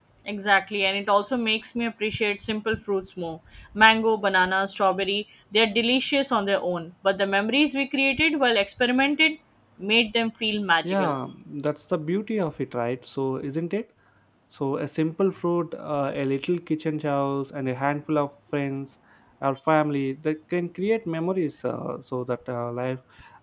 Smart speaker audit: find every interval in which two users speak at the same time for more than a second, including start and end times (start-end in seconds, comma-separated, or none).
none